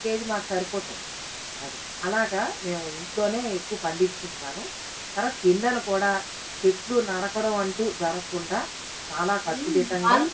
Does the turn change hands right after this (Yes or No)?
Yes